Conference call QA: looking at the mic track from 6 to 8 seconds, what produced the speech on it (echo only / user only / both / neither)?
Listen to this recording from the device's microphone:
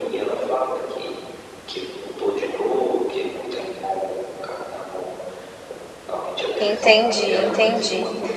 both